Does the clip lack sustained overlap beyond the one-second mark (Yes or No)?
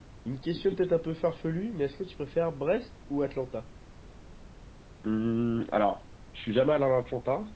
Yes